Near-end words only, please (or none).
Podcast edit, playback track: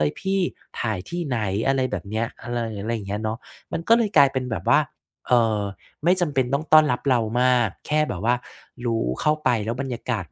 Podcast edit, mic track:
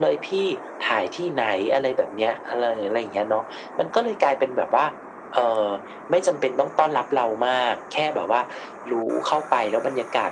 none